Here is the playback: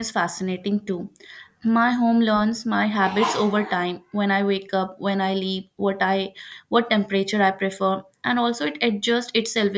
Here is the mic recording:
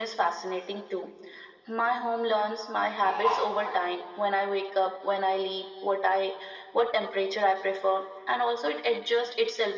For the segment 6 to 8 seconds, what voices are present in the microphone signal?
echo only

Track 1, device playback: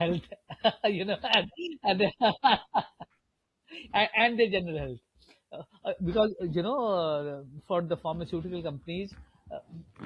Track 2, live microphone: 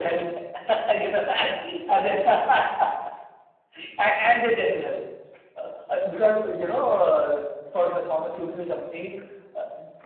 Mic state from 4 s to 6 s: echo only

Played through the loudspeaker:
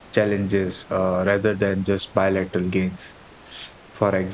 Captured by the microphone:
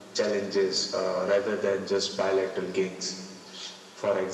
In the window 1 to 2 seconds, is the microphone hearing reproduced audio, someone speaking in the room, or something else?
echo only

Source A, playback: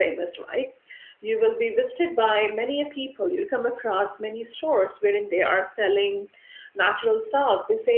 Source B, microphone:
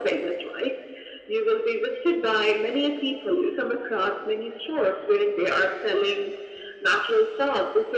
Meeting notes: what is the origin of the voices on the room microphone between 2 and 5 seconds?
echo only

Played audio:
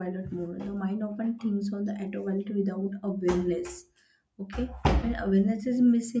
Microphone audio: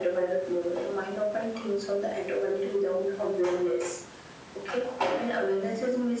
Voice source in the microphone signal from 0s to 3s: echo only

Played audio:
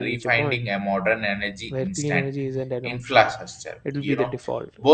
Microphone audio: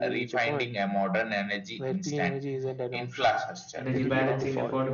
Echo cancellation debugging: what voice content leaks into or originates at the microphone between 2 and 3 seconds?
echo only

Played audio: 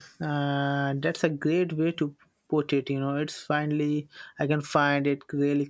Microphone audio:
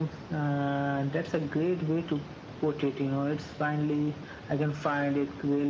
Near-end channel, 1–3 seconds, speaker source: echo only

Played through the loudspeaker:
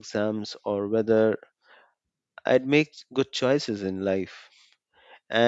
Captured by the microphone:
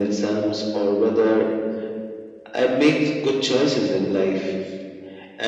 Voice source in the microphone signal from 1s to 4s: echo only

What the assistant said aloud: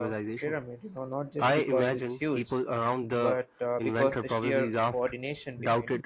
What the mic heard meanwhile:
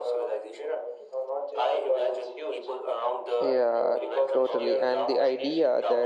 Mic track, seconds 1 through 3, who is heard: echo only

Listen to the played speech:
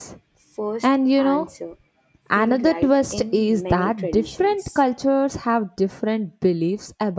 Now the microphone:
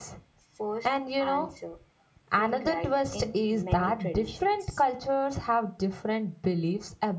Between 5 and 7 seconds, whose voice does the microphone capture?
echo only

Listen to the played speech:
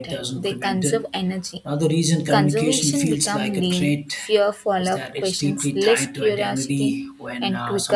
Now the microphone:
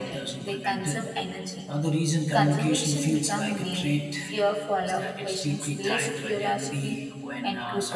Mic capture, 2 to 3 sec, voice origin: echo only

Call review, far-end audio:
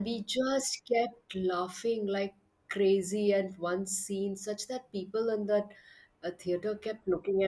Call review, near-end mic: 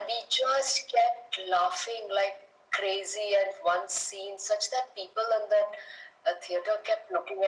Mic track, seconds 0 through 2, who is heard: echo only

